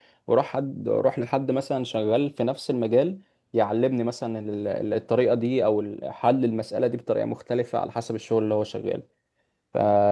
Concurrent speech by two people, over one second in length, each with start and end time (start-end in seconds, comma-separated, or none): none